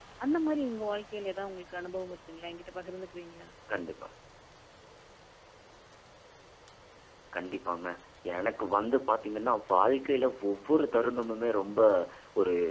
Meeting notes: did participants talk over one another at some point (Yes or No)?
No